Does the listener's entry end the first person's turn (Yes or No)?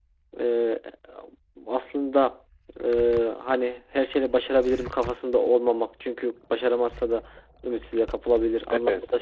No